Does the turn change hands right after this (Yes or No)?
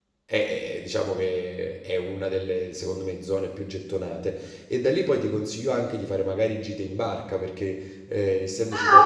Yes